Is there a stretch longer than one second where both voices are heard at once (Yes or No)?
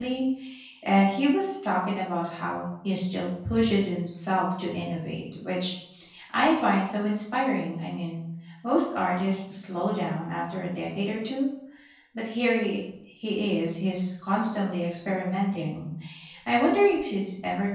No